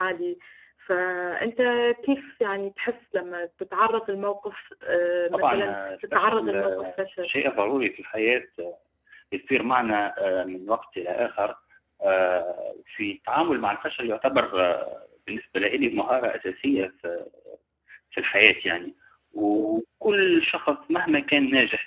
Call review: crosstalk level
present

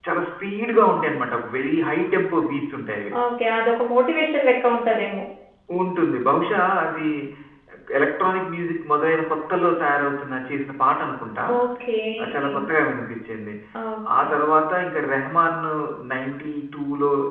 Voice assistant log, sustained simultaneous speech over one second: none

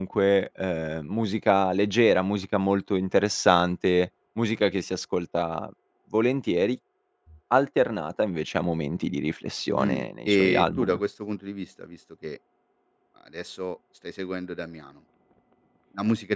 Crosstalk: present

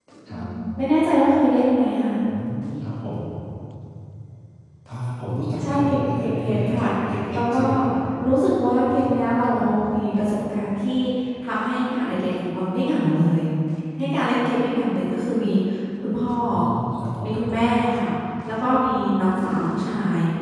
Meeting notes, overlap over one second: present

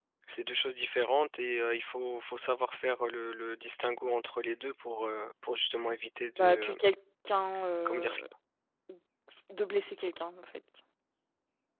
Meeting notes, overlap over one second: none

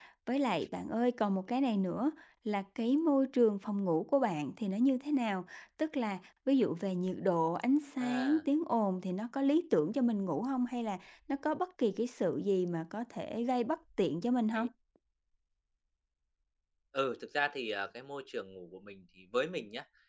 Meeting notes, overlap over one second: none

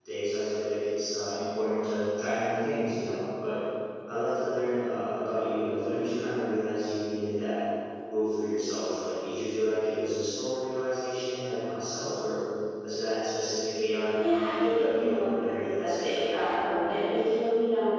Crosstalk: present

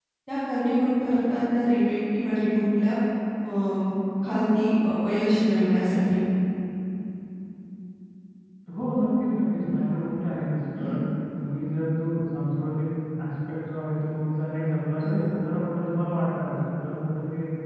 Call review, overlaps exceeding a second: none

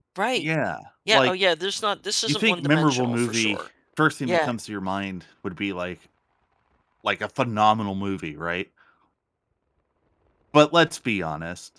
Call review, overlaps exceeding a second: present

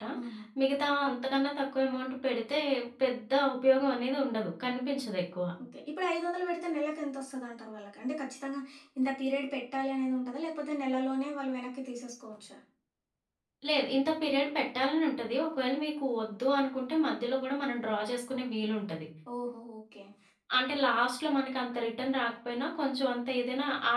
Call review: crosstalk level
none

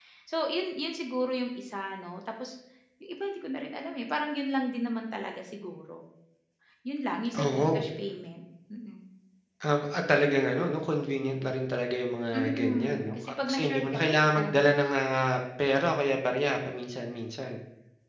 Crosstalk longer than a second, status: present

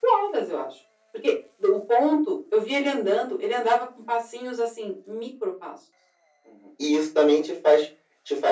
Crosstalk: none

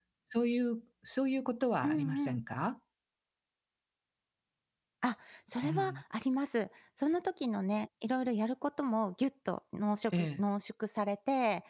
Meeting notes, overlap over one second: none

